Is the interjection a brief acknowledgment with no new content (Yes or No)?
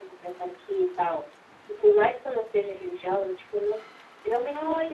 No